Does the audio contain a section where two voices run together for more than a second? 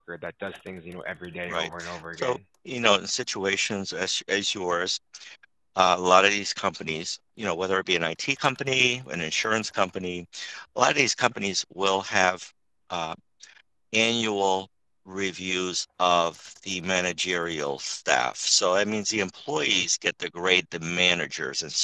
No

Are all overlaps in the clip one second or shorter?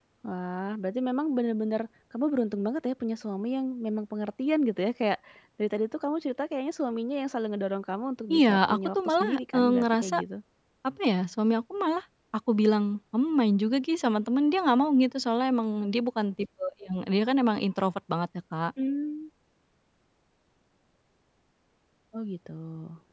No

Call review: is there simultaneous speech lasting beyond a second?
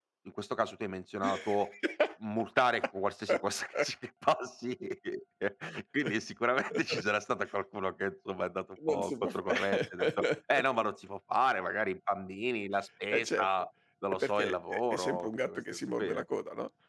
Yes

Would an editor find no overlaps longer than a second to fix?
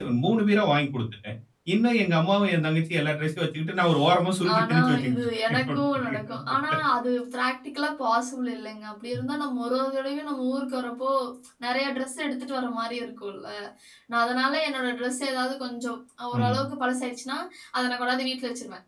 No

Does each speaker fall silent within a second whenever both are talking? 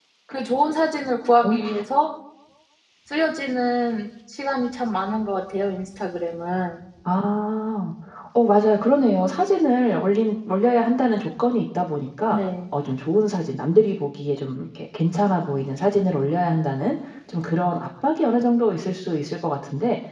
Yes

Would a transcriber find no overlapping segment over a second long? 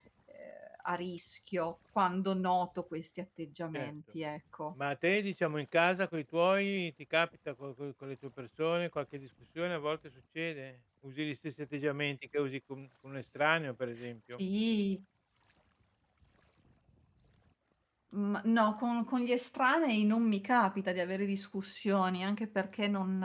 Yes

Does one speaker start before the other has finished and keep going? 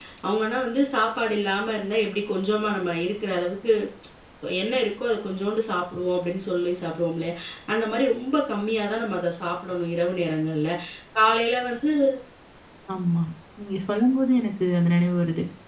No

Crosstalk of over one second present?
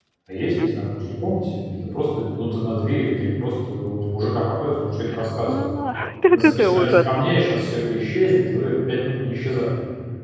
Yes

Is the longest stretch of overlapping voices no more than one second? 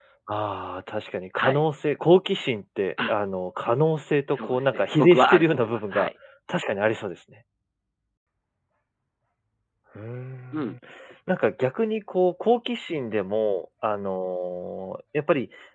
No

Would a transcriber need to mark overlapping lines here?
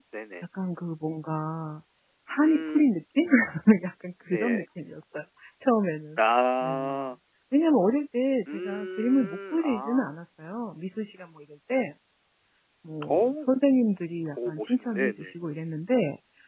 Yes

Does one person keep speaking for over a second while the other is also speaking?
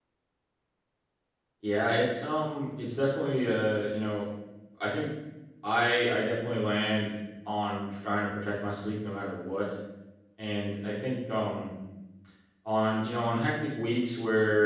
No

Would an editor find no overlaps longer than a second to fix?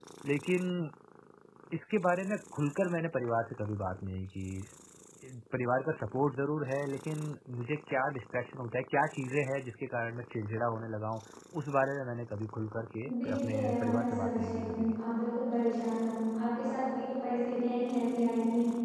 No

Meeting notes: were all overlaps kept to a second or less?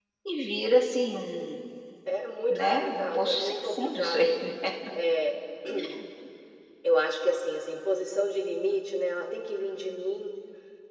No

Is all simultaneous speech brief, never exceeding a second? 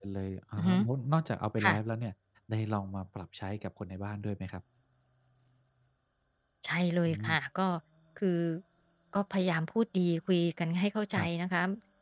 Yes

